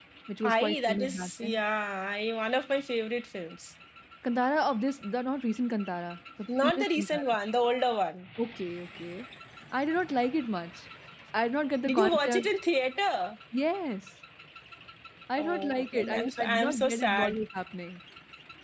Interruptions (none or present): present